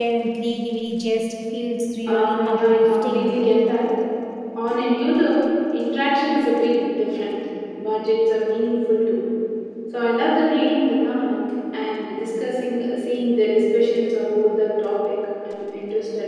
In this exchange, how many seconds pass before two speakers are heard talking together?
2.1 s

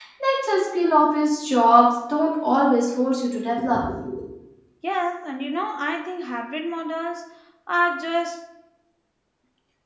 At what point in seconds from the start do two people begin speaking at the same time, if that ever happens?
none

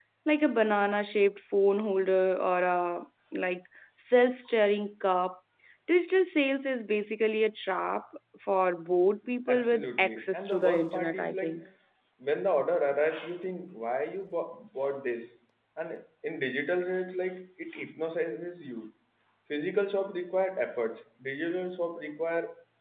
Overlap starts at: 9.5 s

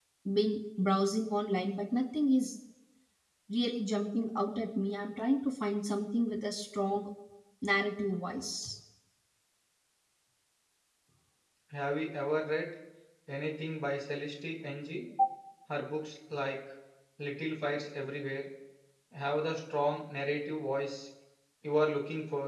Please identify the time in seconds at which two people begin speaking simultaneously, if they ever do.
none

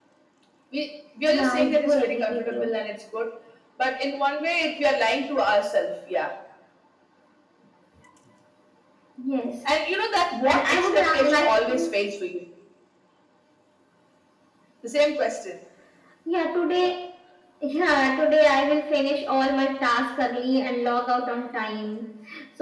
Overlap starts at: 1.2 s

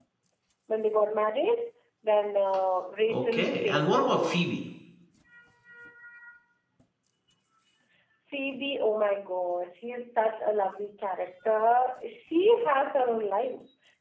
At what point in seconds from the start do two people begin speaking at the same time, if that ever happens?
3.1 s

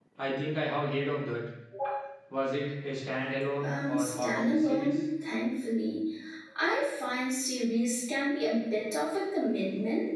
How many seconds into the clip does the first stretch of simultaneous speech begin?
3.6 s

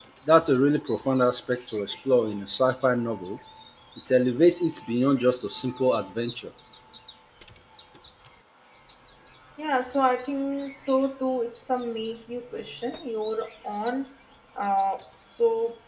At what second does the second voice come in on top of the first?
none

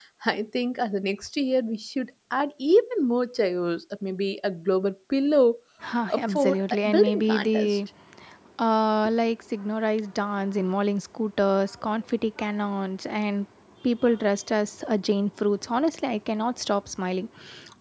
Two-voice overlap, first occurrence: 6.1 s

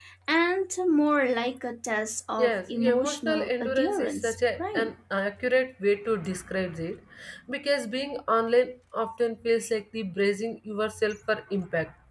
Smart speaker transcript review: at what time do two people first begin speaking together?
2.4 s

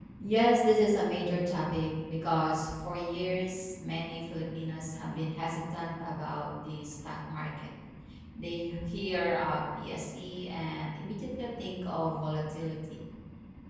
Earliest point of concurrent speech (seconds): none

